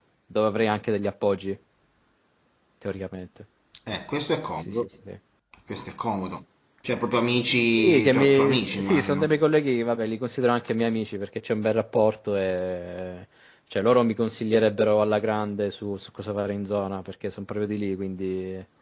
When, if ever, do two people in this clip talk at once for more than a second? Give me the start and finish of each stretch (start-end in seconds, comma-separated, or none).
7.8-9.3